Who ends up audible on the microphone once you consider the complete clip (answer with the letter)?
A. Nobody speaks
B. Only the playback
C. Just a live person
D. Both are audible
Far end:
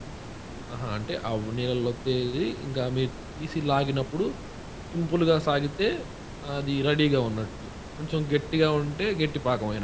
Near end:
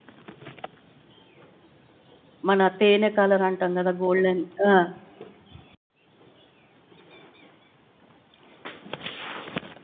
C